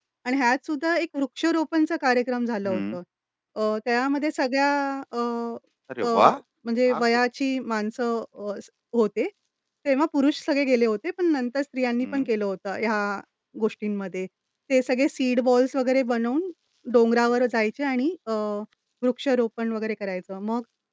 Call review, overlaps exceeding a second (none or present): none